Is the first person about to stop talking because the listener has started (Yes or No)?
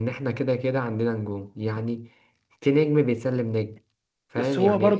Yes